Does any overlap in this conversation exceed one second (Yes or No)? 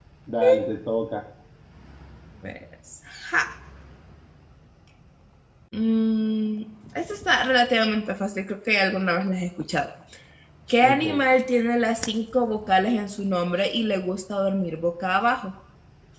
No